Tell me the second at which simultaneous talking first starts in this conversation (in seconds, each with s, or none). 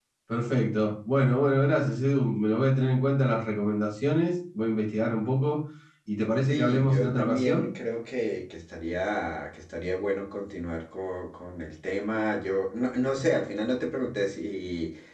6.4 s